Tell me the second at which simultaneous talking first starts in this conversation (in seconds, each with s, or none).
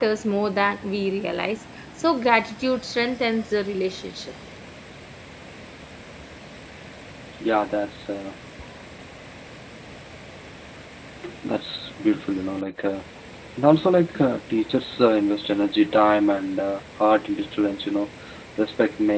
none